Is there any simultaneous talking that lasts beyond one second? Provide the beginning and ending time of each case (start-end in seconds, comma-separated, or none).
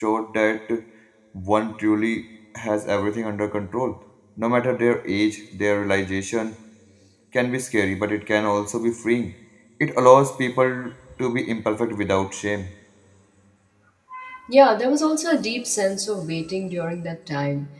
none